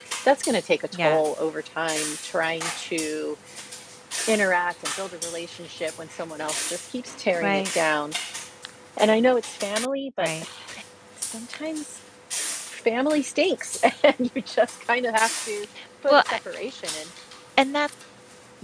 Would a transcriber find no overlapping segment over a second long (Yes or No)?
Yes